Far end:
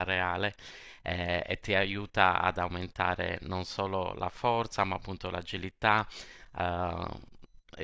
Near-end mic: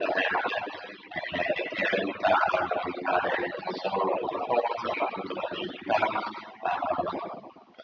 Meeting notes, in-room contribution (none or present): none